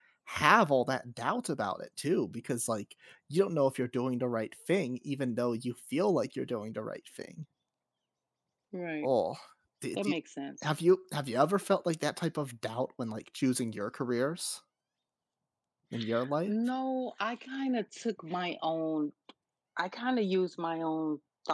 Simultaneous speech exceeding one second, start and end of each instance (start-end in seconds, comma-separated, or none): none